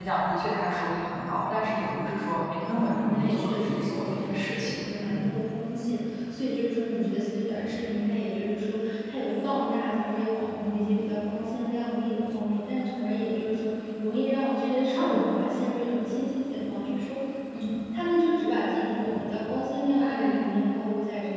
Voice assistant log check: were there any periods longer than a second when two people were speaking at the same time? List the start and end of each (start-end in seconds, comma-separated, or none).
2.8-5.3